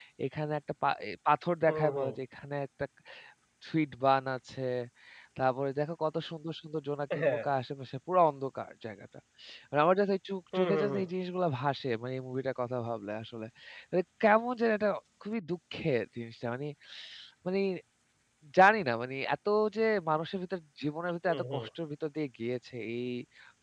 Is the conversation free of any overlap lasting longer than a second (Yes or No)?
Yes